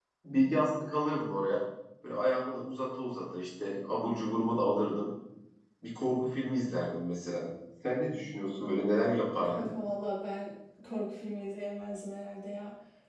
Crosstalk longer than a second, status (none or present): none